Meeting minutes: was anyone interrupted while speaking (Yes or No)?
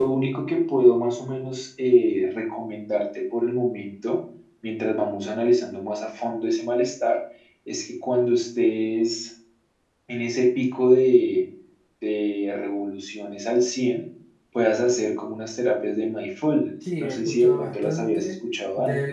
Yes